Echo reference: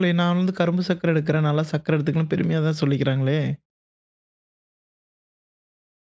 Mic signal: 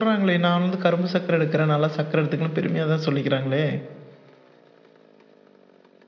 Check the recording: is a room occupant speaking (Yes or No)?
No